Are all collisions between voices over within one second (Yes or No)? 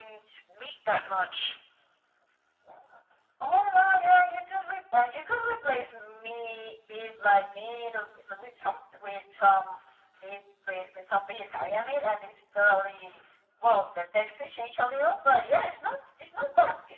Yes